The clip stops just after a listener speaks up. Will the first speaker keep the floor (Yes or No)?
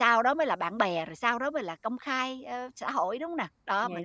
No